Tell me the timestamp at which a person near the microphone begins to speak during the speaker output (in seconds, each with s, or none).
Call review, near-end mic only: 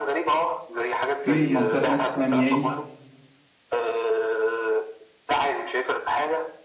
1.2 s